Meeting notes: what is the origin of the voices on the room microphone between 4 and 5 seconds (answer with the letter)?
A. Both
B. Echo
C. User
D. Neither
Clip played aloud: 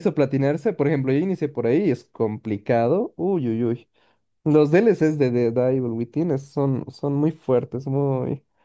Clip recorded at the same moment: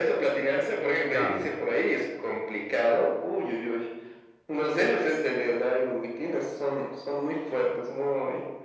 B